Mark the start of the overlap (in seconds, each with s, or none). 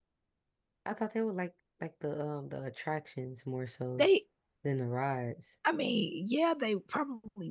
none